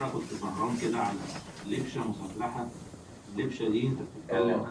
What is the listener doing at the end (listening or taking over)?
listening